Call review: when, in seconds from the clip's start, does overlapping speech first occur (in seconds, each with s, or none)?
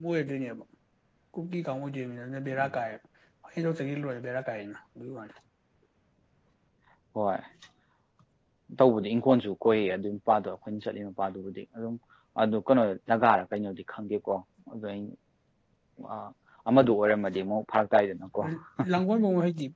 none